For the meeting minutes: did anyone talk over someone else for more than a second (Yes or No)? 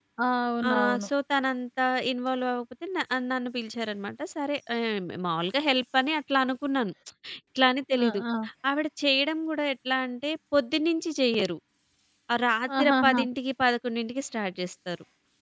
No